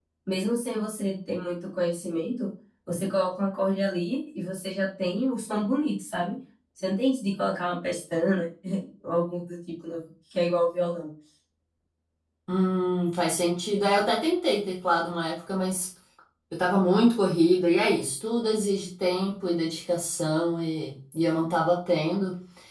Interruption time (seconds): none

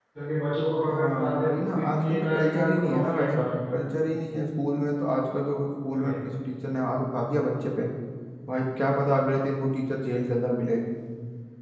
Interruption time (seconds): 1 s

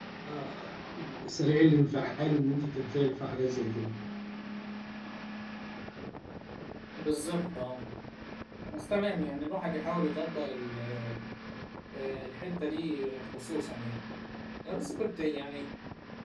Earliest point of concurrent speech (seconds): none

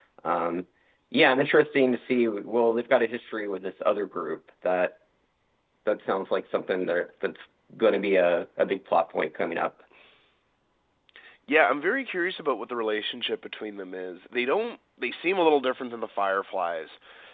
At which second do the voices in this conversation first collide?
none

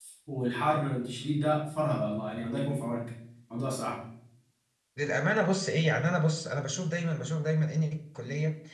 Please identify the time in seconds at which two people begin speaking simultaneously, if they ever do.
none

